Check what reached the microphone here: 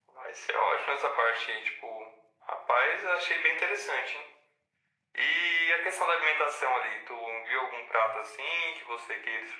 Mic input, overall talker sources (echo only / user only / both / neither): echo only